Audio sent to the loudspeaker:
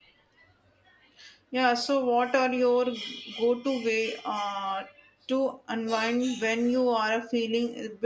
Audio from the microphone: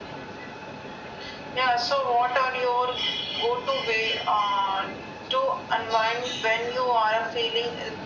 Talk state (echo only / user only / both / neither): echo only